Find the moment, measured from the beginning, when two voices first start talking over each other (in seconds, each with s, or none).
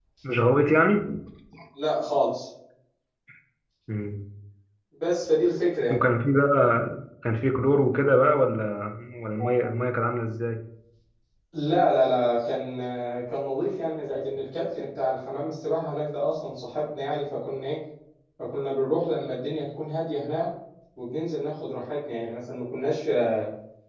none